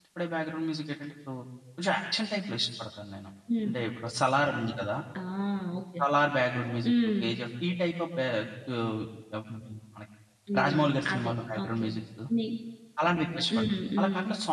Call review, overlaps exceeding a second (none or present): present